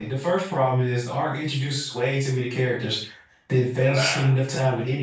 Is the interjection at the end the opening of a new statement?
No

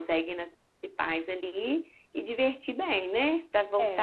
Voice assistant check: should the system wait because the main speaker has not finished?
No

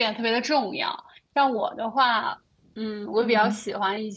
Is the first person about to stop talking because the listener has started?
No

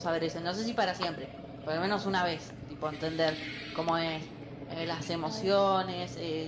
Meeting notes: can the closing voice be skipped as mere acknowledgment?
Yes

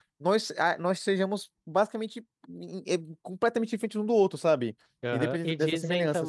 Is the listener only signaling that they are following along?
No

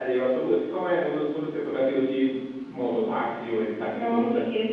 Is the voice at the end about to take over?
Yes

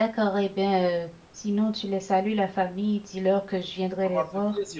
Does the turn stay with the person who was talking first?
No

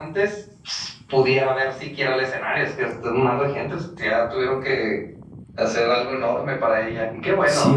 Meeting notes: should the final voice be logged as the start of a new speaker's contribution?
Yes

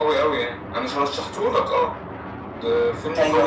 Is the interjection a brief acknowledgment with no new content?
No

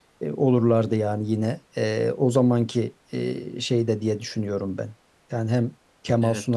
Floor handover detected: No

